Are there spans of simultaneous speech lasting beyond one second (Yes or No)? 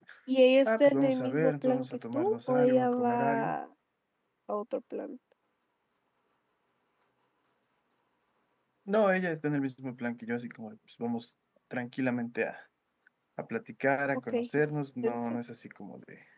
Yes